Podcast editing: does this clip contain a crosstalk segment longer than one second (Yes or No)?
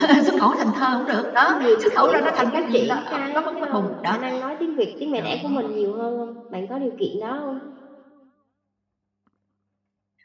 Yes